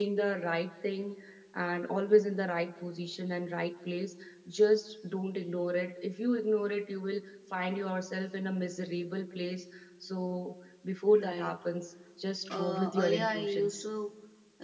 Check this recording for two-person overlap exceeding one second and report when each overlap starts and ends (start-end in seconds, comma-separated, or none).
12.5-13.8